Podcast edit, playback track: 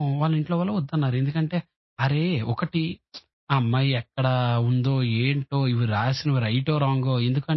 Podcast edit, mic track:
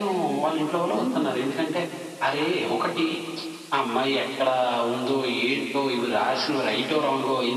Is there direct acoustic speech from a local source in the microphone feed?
Yes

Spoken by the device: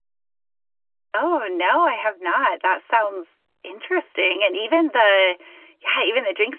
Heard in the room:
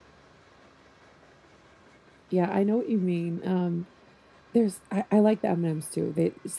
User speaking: Yes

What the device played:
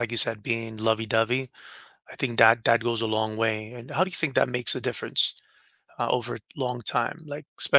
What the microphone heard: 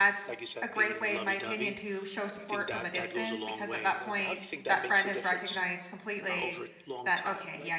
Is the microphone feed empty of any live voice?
No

